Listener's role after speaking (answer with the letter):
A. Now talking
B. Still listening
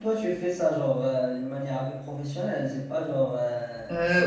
A